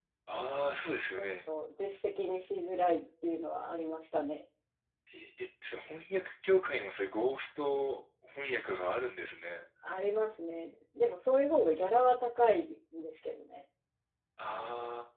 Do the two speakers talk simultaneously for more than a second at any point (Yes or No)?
No